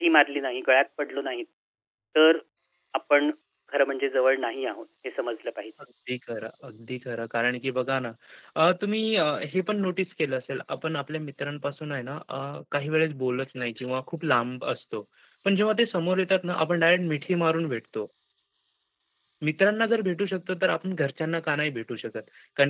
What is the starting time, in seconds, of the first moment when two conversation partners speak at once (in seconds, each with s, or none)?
none